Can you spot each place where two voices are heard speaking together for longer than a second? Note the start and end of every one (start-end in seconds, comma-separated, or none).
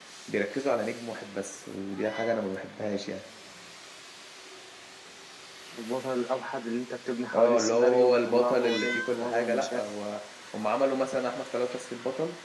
7.3-9.8